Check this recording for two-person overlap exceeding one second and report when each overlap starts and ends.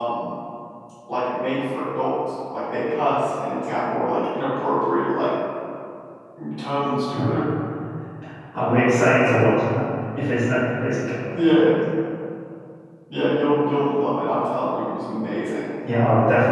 none

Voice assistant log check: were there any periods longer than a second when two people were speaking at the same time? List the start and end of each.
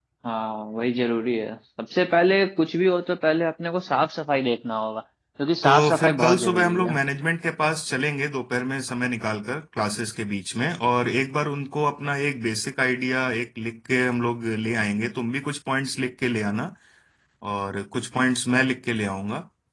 5.6-7.0

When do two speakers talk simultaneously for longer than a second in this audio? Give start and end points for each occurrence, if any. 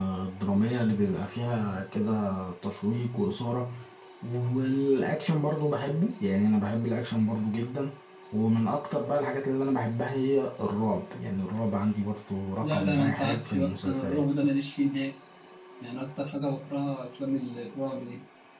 12.6-14.3

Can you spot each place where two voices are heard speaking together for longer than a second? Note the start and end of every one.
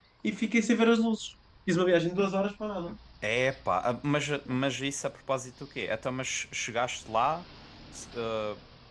none

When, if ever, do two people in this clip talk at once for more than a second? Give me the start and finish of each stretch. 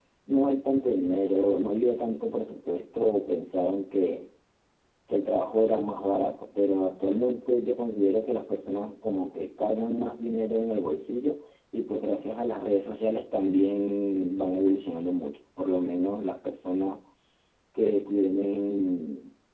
none

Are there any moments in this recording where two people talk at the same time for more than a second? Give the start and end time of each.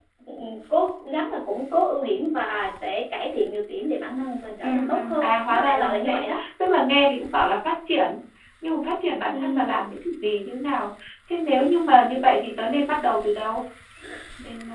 4.6-6.2

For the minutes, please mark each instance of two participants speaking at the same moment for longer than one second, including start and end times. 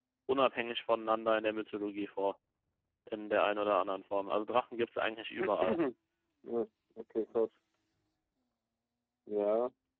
none

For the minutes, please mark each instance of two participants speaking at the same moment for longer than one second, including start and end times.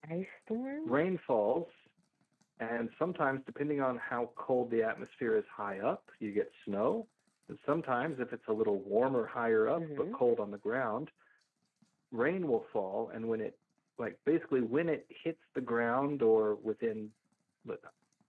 none

